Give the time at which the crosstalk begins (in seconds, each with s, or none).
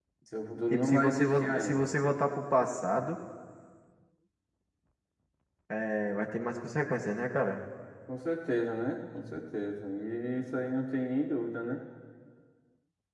0.7 s